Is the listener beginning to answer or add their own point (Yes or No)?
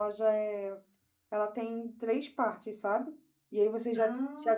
No